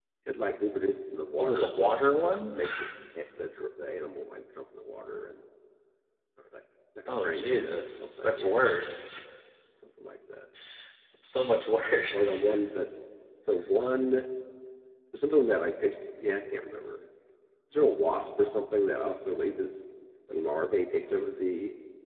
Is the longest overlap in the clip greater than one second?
Yes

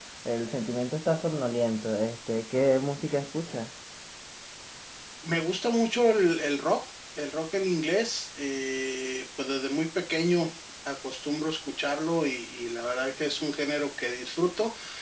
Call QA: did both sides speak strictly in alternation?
Yes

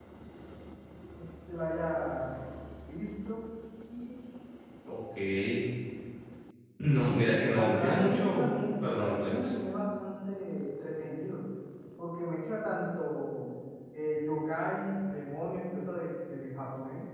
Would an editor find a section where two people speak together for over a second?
Yes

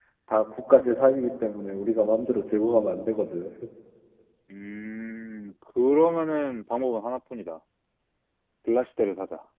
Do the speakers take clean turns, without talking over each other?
Yes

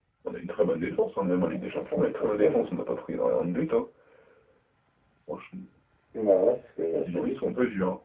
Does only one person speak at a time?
No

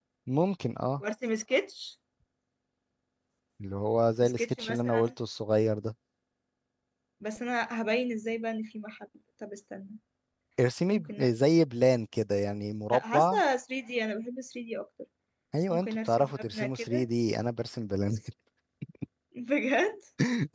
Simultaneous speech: Yes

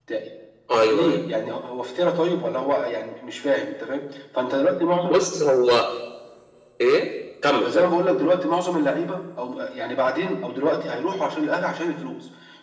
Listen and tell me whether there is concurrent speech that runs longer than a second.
No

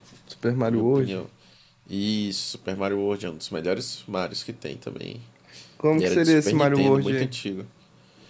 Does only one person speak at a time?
No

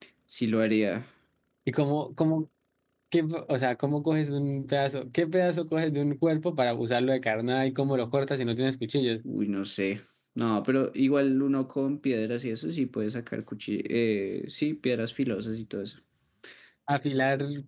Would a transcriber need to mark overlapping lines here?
No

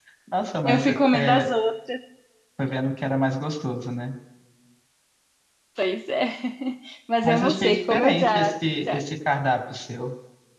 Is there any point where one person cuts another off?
Yes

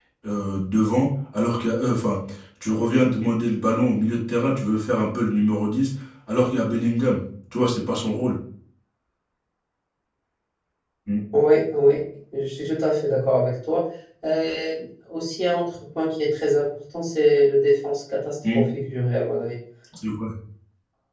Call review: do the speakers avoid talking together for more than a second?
Yes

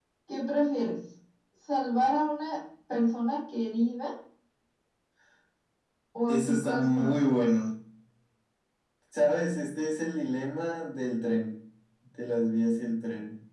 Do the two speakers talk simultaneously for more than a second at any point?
Yes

